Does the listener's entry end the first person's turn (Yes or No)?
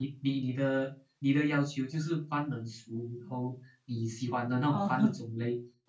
No